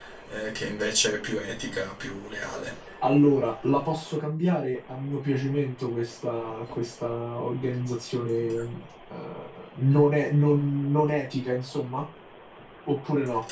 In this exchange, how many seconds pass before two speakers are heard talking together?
none

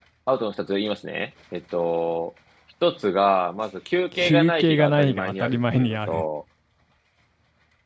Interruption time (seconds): 4.1 s

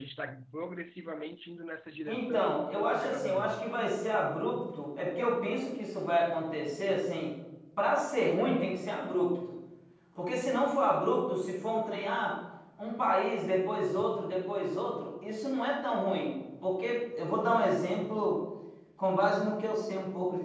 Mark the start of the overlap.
2.1 s

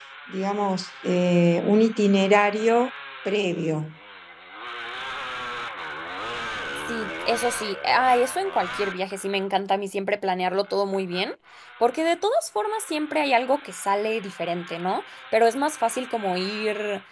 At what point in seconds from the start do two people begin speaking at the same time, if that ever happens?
none

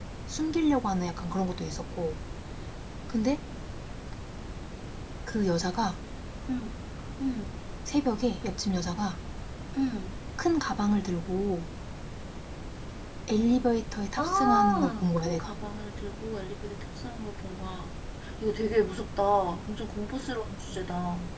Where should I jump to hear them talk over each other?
14.2 s

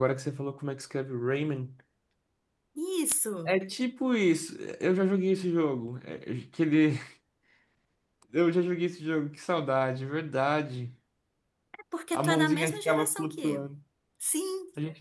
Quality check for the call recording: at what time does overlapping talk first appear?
12.1 s

